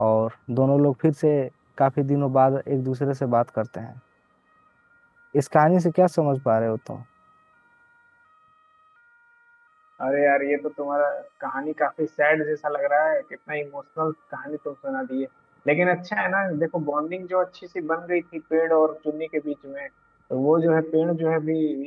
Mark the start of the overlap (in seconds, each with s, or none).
none